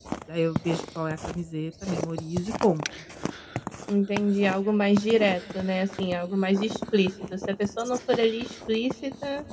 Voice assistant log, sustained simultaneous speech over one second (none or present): none